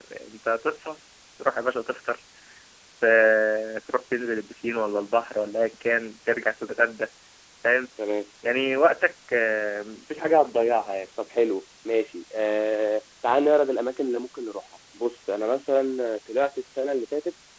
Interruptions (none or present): none